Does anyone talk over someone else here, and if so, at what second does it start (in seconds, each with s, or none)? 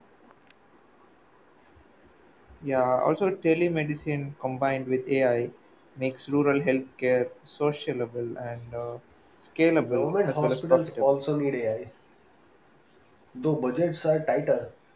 9.9 s